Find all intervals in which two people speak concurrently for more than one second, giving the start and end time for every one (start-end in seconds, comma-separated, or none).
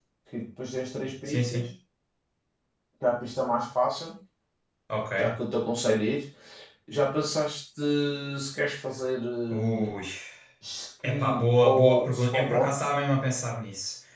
11.0-12.8